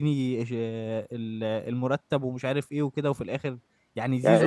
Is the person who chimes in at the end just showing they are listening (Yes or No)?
No